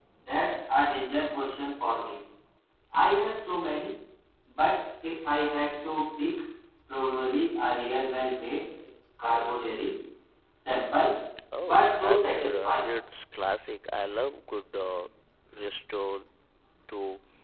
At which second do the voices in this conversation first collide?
11.6 s

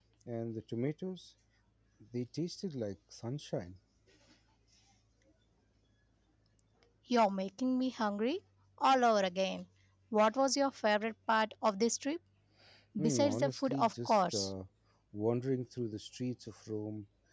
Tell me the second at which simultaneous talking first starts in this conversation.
13.0 s

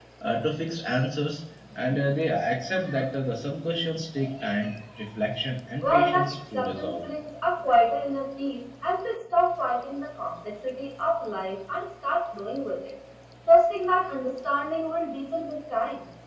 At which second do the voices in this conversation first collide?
5.8 s

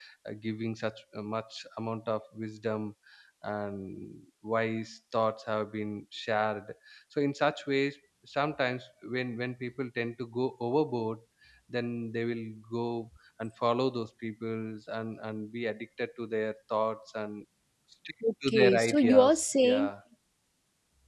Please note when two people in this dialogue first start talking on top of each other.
18.5 s

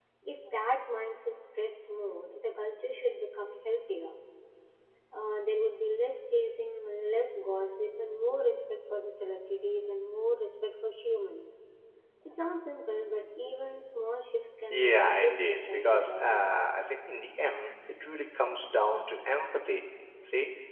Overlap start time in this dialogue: 14.7 s

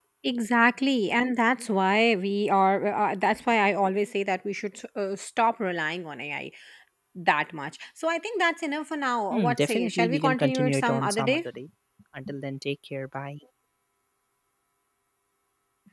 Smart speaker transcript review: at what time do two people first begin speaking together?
9.3 s

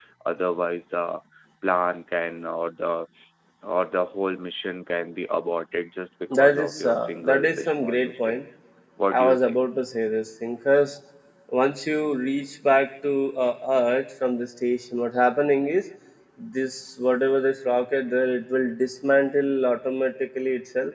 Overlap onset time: 6.4 s

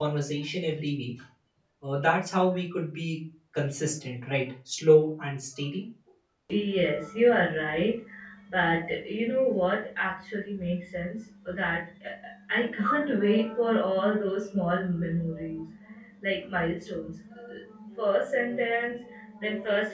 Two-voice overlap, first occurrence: none

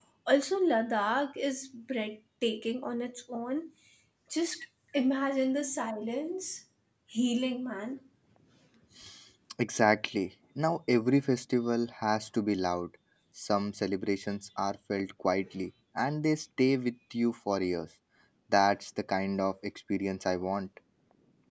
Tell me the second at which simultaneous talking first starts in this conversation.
none

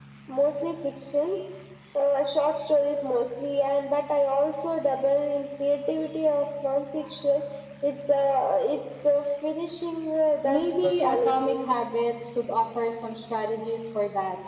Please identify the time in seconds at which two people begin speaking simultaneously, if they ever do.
10.4 s

